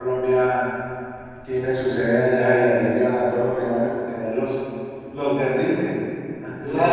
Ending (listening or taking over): taking over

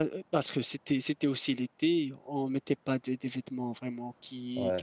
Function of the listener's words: listening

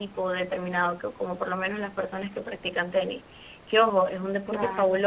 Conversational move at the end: listening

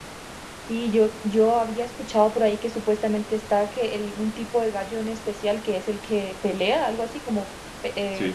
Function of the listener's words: taking over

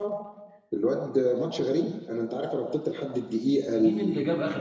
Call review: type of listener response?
taking over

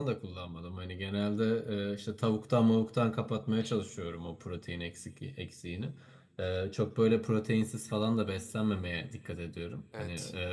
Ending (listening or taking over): listening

